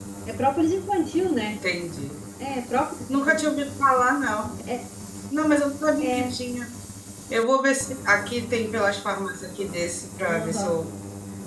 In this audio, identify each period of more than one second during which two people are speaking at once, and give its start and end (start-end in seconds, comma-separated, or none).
none